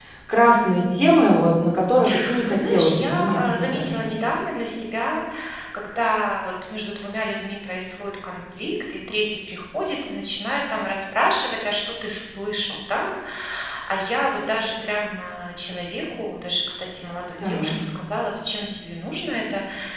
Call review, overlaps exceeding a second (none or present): present